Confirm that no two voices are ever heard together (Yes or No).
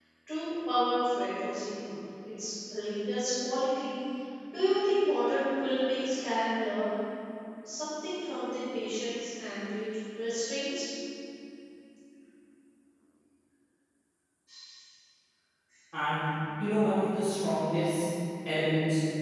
Yes